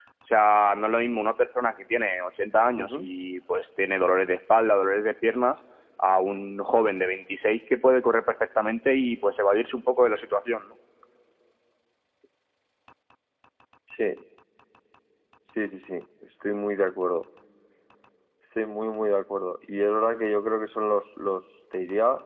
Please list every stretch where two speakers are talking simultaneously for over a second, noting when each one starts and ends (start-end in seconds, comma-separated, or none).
none